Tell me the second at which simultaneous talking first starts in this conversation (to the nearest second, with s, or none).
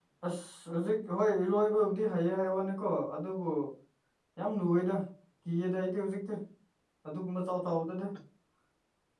none